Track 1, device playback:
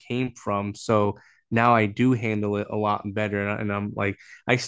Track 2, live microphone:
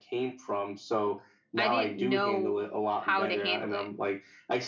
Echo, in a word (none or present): present